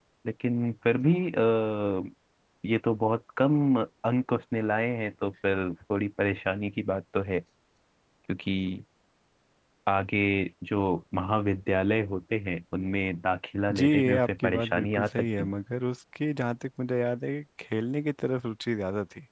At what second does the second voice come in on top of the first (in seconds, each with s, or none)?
13.7 s